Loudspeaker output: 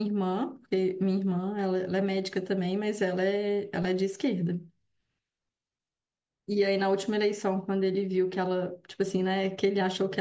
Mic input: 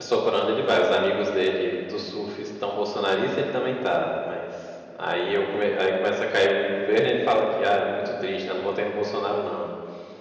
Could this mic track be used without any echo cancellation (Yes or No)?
Yes